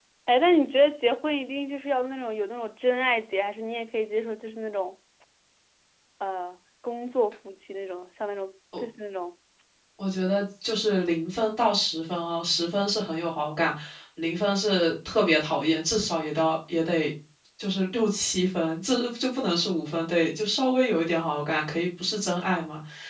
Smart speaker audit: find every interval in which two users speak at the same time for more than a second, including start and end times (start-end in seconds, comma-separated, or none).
none